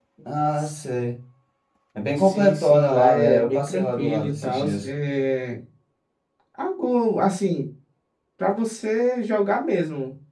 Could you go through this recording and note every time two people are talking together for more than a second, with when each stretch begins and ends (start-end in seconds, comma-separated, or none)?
2.1-4.9